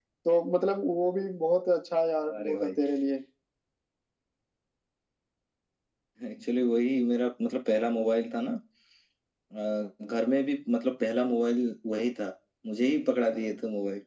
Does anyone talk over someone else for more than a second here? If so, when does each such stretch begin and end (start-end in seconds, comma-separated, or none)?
none